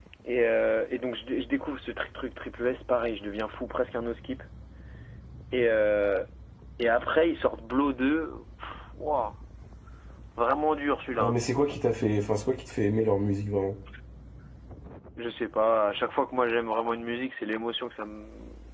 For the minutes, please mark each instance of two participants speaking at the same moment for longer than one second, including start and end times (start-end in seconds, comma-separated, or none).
none